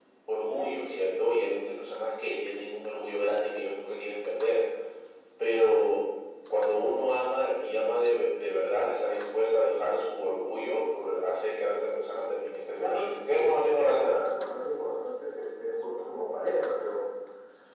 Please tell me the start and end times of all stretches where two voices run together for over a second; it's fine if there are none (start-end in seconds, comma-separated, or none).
12.8-14.2